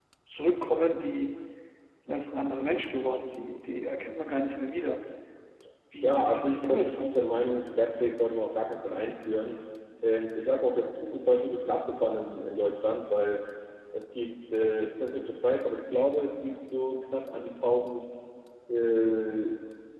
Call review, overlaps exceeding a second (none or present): present